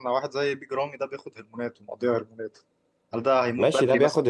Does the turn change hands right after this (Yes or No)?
Yes